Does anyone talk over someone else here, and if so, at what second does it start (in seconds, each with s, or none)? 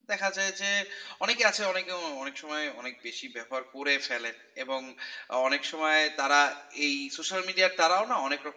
none